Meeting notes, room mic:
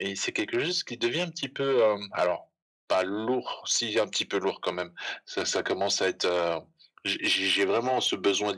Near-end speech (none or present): none